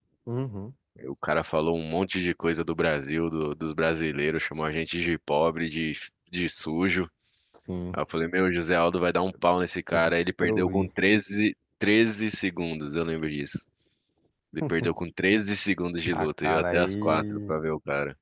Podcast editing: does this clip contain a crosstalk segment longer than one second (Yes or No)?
Yes